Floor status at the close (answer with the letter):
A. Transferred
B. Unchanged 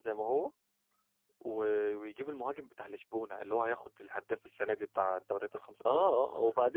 A